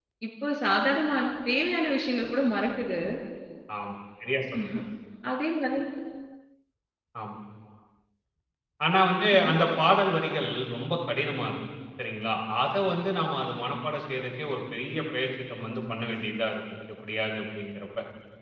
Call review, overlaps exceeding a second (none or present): none